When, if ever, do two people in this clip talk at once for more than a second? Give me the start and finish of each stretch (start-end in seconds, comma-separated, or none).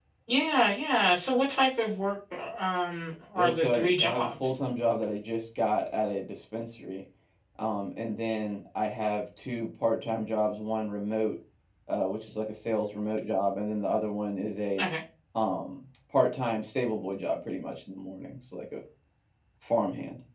3.4-4.6